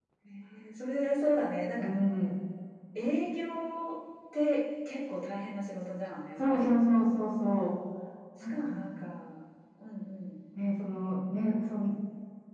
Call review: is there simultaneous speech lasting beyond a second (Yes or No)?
No